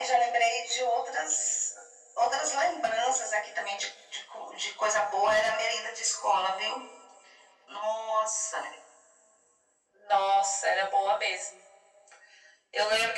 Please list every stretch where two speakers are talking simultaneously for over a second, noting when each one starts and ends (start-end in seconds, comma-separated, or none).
none